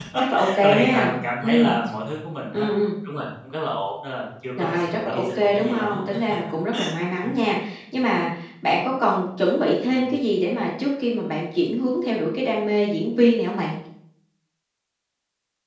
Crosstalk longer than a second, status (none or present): present